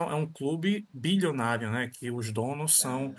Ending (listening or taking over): listening